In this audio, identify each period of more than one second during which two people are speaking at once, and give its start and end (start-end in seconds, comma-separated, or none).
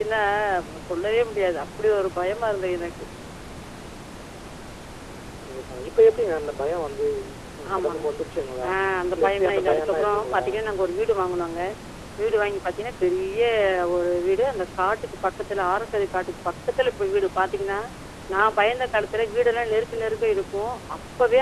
9.2-10.4